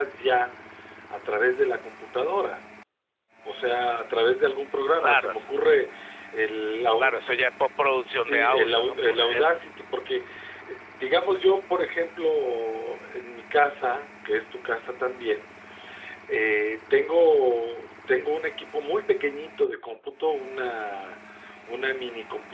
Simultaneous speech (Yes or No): Yes